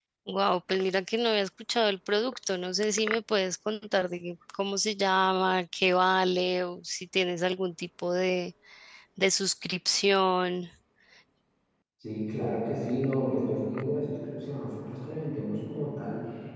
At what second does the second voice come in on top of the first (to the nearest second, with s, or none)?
none